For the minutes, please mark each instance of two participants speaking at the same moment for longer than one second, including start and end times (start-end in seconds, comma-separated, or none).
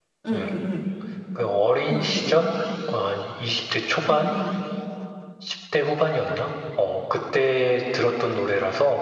none